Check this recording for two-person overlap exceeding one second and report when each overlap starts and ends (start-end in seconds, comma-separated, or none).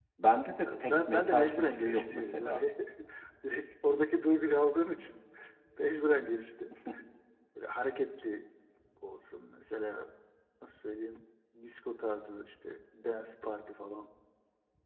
0.7-2.6